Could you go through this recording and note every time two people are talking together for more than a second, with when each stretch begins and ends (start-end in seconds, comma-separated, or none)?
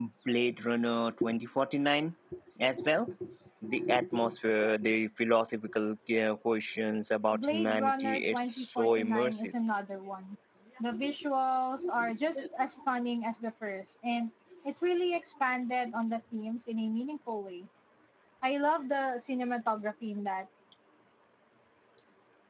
7.3-9.5